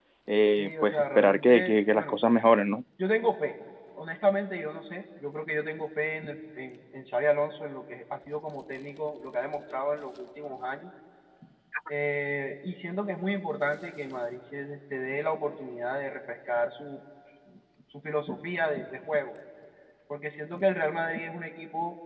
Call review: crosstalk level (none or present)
present